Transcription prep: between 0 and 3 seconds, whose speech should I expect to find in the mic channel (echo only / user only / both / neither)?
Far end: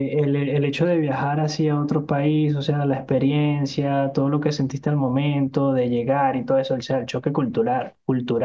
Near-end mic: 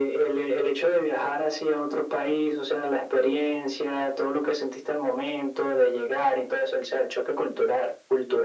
echo only